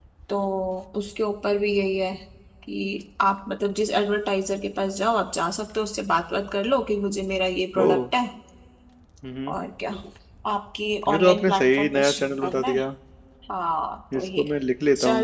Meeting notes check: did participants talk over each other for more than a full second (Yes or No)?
Yes